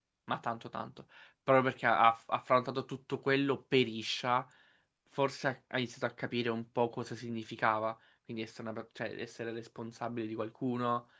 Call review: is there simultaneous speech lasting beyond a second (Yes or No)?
No